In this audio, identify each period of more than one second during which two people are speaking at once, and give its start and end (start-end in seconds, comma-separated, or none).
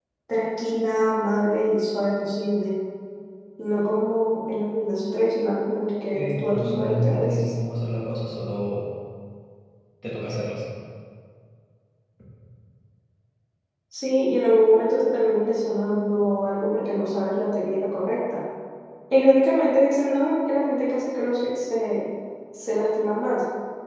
6.1-7.5